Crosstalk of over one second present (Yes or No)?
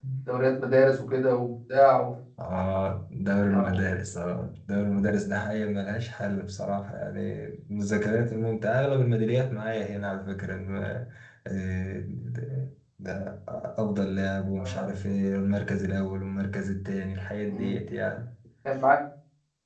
No